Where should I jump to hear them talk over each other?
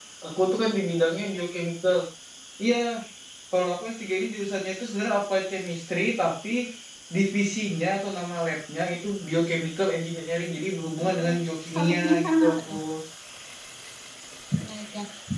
11 s

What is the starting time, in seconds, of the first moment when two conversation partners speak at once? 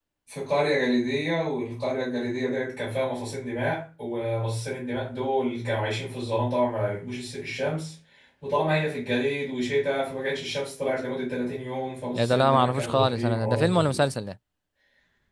12 s

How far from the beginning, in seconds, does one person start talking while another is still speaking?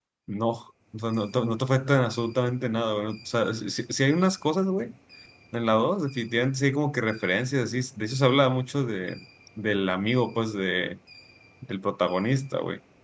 none

